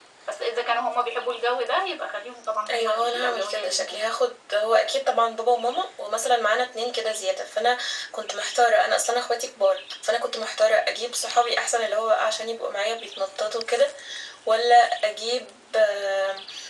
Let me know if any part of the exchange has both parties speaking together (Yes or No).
Yes